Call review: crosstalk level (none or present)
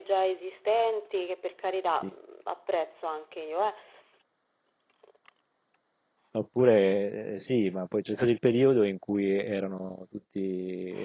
none